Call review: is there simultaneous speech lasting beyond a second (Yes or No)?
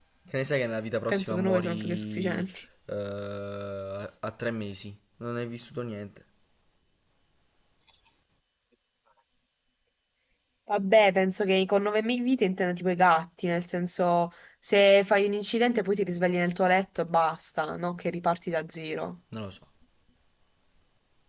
Yes